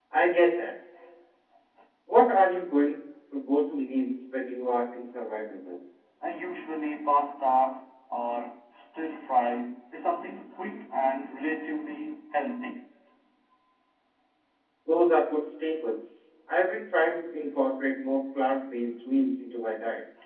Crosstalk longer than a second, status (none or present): none